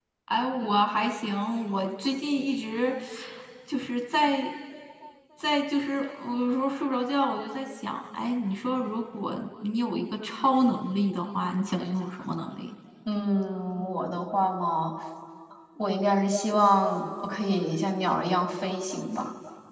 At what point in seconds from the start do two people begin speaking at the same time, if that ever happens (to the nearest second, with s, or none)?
none